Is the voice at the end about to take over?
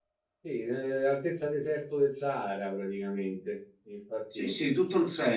Yes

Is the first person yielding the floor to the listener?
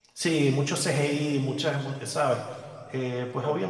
No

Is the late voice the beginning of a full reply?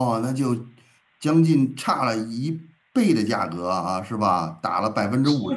Yes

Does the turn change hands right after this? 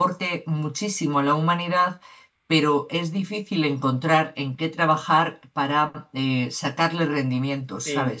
Yes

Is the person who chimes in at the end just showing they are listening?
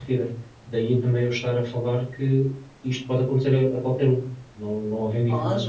No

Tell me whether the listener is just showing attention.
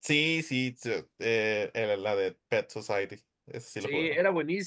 No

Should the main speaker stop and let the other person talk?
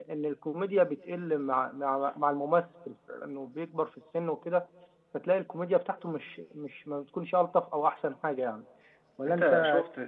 Yes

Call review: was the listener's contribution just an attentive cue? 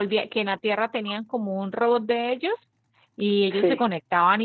Yes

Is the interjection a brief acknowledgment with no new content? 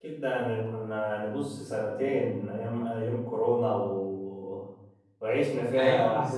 Yes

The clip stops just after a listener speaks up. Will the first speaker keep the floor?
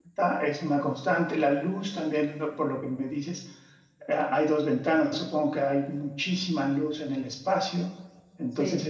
Yes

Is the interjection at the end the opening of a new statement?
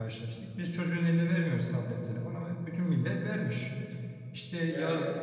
No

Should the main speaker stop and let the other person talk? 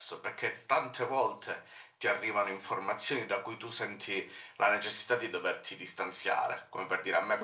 No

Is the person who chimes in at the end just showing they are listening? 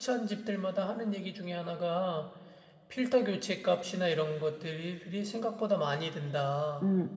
No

